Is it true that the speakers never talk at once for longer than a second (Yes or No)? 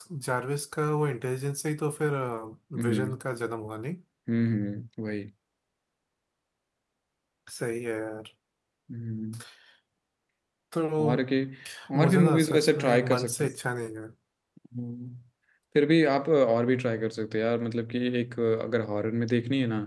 No